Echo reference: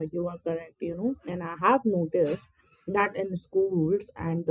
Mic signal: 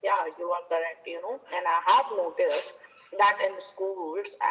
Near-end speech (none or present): none